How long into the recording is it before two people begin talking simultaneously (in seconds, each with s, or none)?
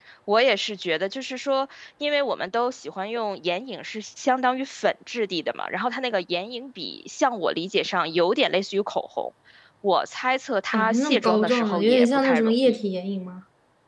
10.7 s